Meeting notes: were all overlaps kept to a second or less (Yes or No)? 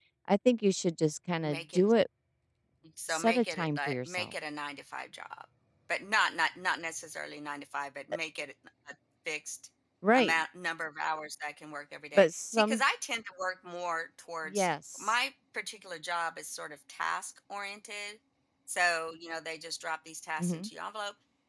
No